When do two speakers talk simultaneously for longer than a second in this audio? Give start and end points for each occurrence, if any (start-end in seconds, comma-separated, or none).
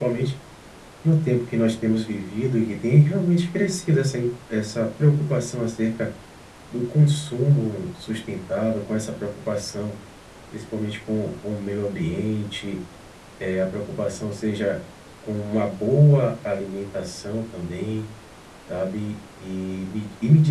none